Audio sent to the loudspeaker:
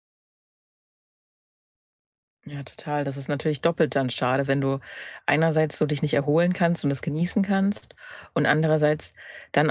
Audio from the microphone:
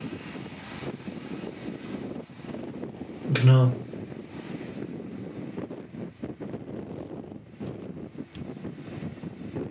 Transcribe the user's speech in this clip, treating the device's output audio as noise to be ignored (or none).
genau.